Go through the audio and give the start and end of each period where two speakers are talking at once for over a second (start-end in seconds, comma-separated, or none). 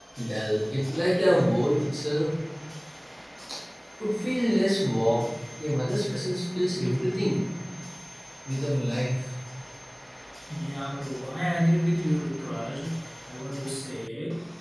none